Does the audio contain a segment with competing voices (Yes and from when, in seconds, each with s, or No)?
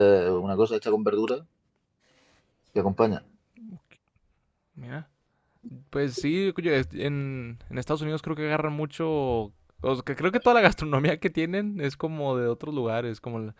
No